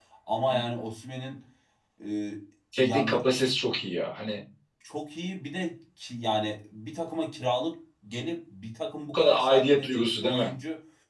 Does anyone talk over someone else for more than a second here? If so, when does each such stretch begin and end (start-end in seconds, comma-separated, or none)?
9.1-10.5